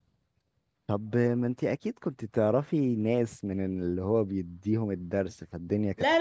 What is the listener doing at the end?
taking over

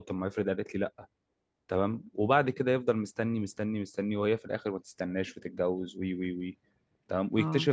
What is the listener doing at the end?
listening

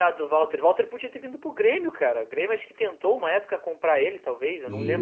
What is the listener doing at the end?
taking over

